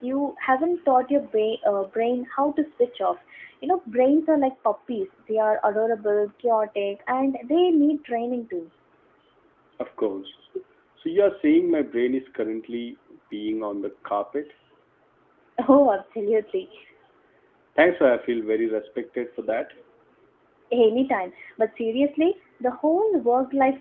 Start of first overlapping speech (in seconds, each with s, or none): none